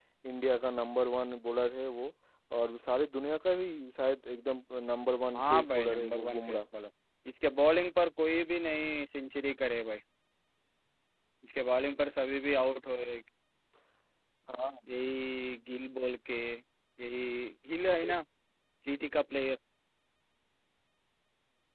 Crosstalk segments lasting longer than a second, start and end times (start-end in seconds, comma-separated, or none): 5.4-6.6